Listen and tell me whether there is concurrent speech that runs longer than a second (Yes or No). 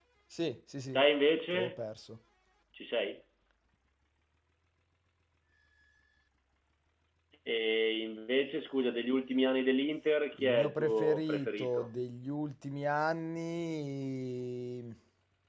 Yes